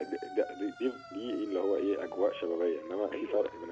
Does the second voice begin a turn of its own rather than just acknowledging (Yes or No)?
No